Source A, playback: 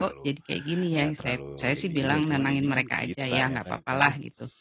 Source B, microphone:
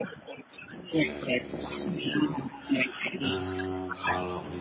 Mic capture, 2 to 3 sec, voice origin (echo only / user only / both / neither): both